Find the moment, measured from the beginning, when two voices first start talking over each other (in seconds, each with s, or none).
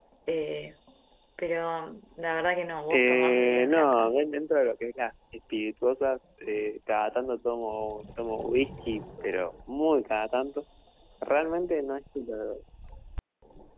2.9 s